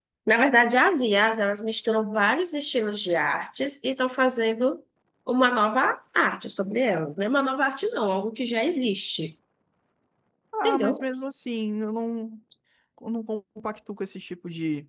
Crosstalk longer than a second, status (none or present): none